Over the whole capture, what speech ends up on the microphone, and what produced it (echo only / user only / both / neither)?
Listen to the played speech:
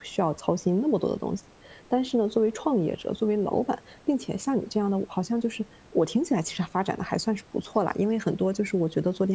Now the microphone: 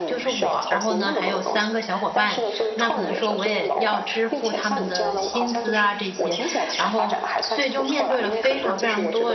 both